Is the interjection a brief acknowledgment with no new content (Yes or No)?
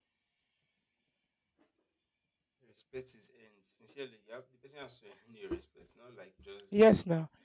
No